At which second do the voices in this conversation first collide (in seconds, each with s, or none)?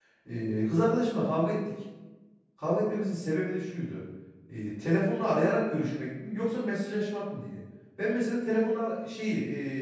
none